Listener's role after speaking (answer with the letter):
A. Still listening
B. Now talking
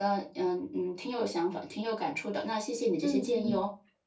B